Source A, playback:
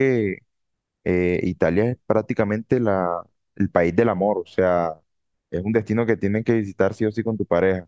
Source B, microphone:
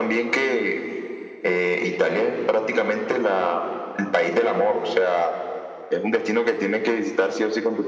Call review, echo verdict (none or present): present